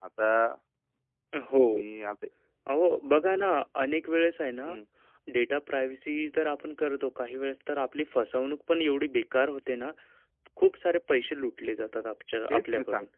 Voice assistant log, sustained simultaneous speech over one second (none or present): none